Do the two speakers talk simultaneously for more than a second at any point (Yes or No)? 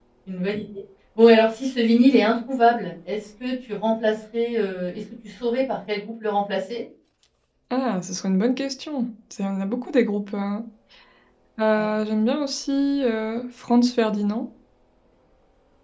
No